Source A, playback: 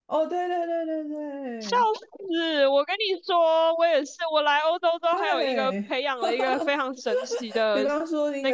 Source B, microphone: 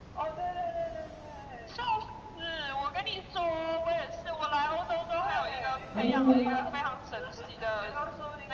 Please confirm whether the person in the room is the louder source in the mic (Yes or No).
Yes